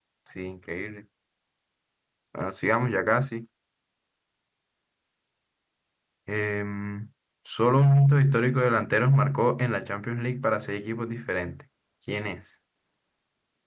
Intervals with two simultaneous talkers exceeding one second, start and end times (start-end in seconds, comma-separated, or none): none